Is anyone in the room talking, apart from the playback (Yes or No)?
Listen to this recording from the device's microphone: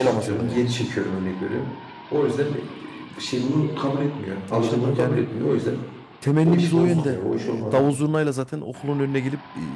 Yes